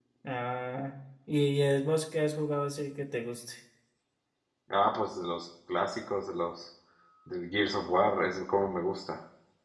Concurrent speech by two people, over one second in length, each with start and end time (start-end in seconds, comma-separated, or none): none